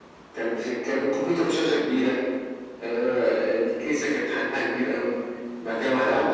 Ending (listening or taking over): listening